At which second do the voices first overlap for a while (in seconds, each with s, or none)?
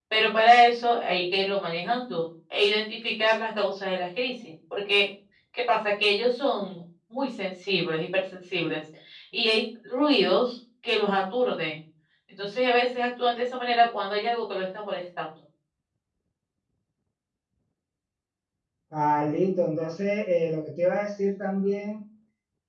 none